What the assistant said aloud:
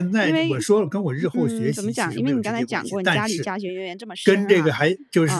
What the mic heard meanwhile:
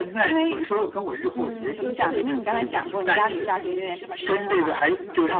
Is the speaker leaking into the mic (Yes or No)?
Yes